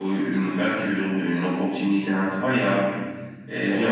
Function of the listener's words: listening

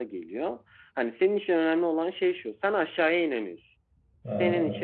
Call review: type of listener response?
listening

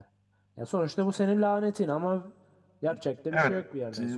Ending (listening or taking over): taking over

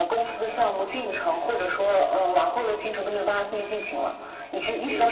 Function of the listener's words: listening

